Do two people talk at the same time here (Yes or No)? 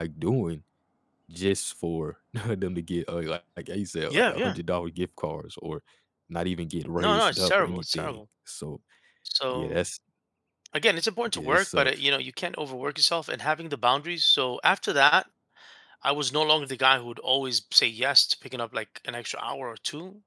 Yes